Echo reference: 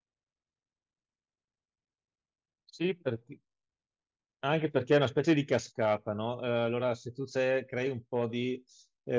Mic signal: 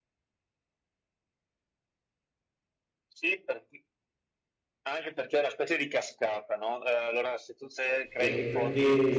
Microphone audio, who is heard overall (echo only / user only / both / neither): both